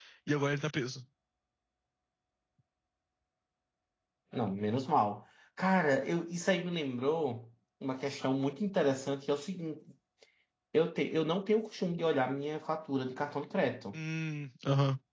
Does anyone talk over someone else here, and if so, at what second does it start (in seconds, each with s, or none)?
none